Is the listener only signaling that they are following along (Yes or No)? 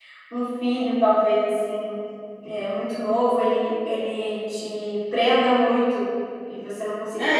No